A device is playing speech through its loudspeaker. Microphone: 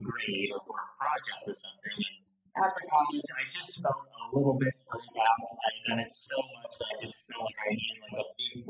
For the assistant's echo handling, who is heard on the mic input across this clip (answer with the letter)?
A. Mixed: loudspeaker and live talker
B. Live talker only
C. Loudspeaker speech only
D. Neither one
C